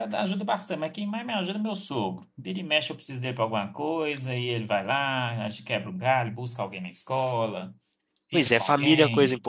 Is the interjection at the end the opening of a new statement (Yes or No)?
Yes